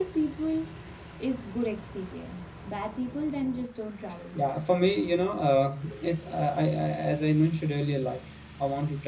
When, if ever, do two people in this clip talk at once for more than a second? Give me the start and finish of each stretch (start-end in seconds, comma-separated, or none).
none